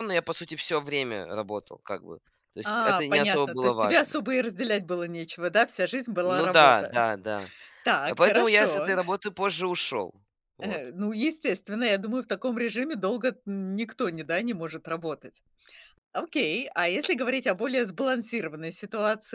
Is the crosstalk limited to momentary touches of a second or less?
No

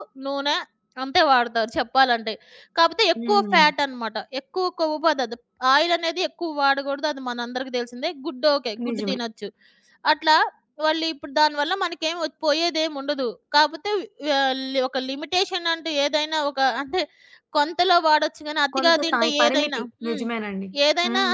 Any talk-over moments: Yes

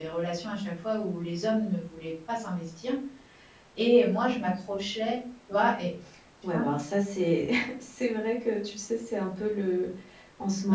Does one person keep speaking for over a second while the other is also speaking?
No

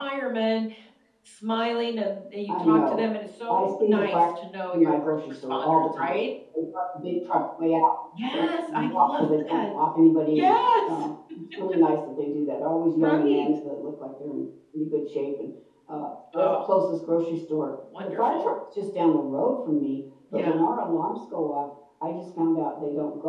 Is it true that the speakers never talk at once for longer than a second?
No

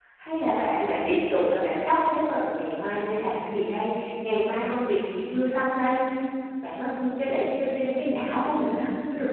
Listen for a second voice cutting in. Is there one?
No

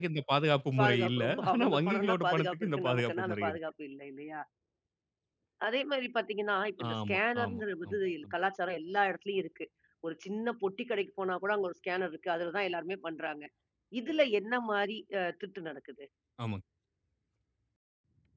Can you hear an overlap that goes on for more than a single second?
Yes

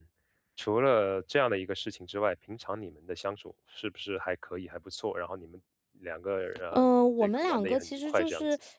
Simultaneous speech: Yes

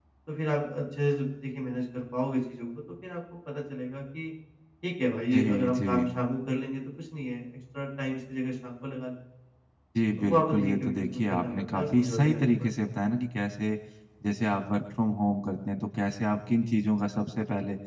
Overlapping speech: Yes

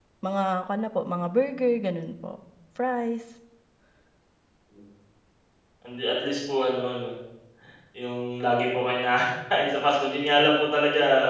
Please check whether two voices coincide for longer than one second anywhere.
No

